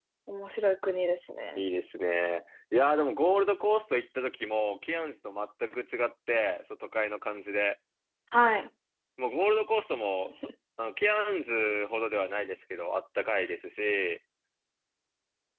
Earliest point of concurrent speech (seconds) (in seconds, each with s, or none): none